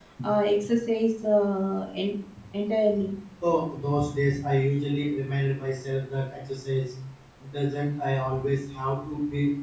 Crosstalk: none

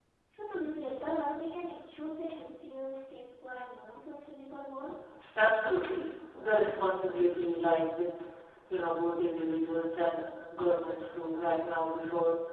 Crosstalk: none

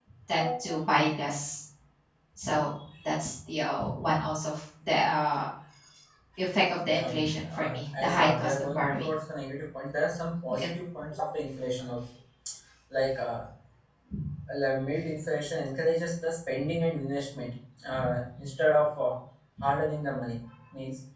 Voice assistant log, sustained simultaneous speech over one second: present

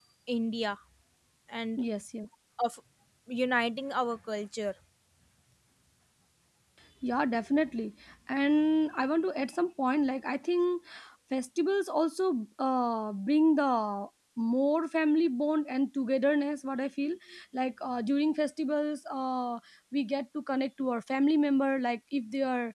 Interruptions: none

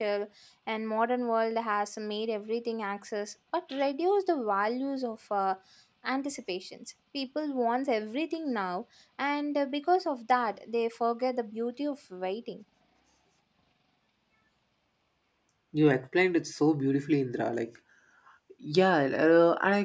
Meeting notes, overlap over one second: none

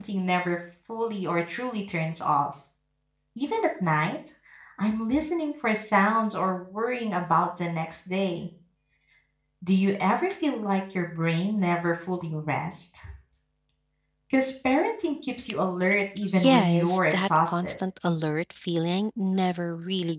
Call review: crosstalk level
present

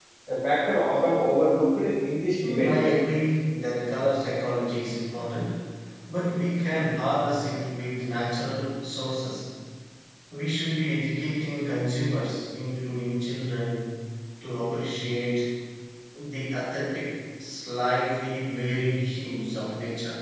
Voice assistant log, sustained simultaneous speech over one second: none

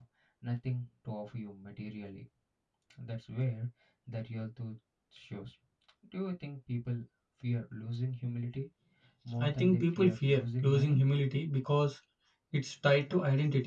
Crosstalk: present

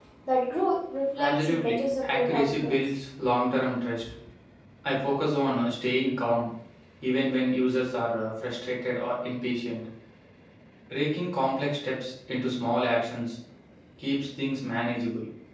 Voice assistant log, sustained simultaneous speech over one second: present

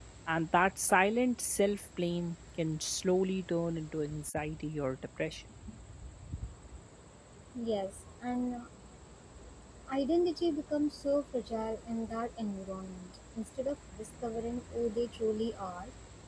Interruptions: none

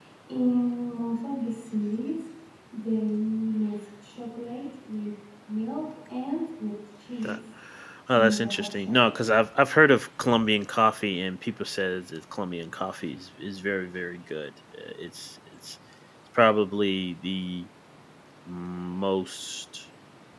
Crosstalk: present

